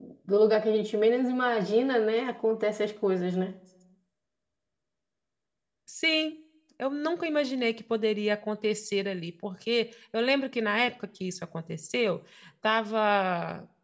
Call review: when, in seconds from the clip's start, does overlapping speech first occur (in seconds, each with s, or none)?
none